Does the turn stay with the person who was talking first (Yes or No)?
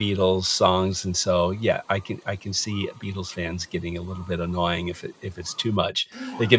Yes